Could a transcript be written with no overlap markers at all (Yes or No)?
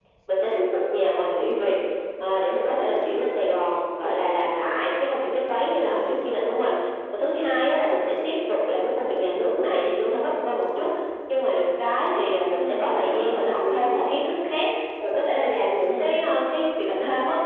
No